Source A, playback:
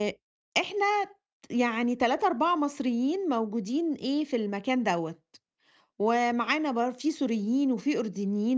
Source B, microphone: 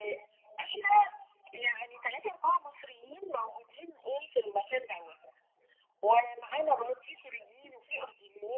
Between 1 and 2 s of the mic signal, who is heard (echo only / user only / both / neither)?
echo only